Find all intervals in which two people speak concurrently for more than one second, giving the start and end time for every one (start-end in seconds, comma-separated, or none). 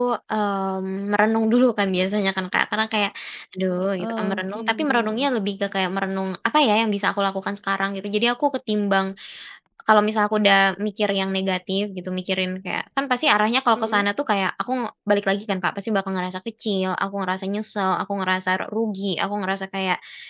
4.0-5.3